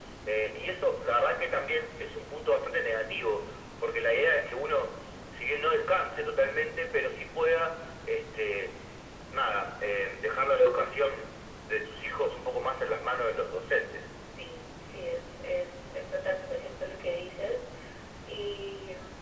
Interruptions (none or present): none